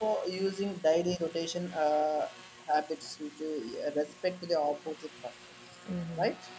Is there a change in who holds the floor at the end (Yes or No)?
Yes